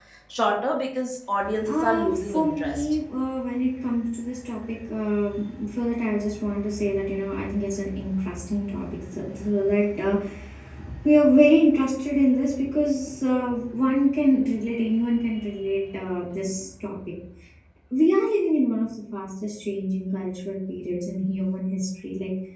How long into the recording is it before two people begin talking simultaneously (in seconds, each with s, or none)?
1.4 s